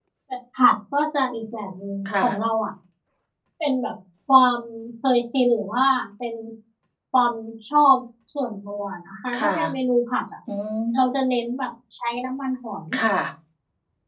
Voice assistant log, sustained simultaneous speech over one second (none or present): none